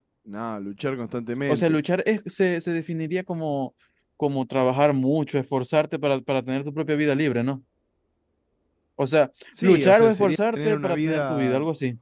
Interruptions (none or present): present